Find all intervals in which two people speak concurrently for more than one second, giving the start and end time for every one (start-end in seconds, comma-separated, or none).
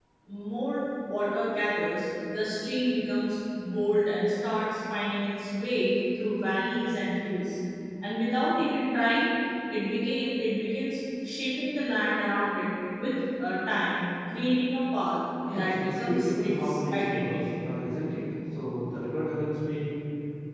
15.6-17.4